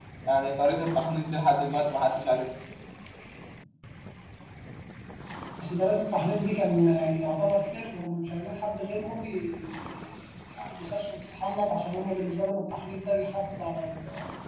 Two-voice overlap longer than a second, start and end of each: none

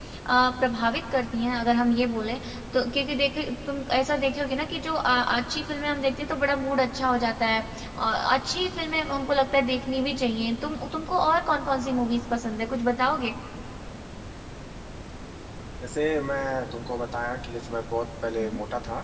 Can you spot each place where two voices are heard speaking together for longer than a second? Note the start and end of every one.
none

